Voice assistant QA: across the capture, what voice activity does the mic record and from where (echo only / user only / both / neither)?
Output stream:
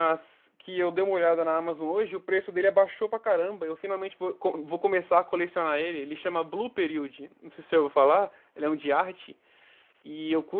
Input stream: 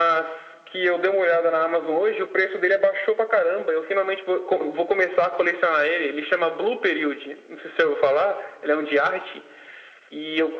echo only